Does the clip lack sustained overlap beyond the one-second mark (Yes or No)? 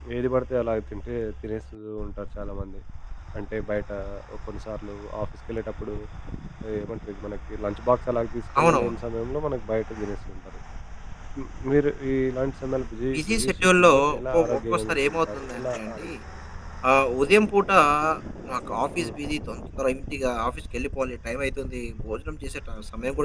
No